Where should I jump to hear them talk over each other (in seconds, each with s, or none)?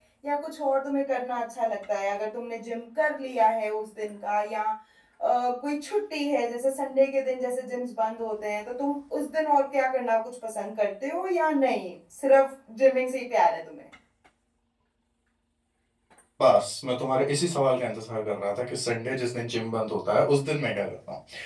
none